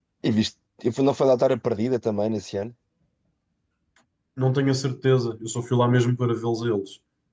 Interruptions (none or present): none